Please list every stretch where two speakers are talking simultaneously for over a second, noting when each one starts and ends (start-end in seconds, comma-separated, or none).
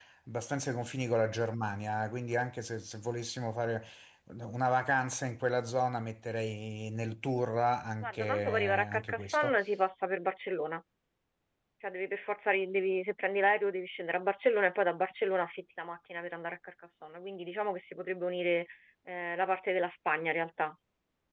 8.0-9.6